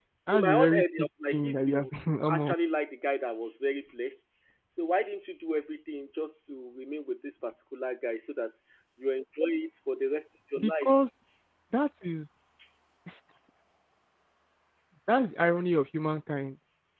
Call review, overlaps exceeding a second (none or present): present